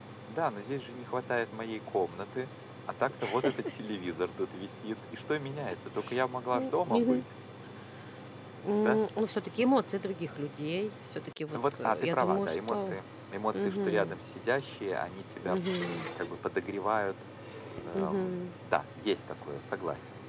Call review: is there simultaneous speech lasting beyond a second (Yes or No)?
Yes